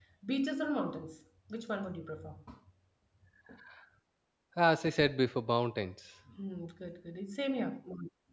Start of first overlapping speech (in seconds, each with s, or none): none